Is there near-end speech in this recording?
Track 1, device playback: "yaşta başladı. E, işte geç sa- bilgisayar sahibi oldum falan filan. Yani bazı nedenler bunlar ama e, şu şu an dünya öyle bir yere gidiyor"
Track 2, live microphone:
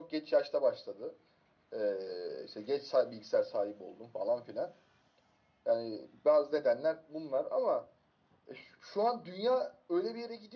No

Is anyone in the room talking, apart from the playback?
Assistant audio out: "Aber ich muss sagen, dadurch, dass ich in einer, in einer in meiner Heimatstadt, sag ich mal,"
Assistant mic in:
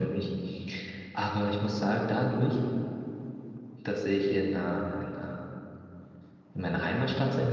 No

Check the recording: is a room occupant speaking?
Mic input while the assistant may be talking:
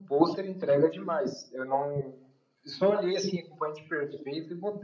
No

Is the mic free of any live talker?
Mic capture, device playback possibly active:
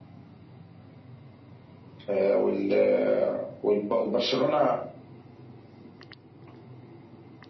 No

